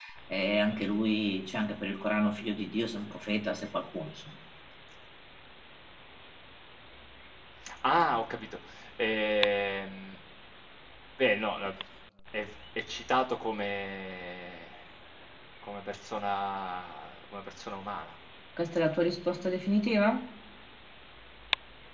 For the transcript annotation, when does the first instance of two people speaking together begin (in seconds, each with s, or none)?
none